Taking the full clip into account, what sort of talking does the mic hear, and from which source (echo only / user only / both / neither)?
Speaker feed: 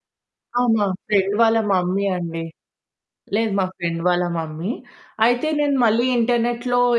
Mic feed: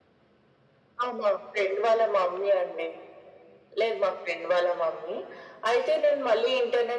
echo only